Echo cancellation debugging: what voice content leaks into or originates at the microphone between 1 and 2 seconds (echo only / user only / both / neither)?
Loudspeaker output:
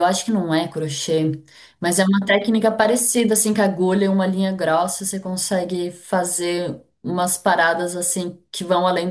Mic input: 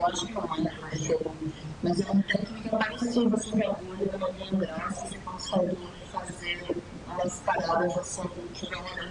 echo only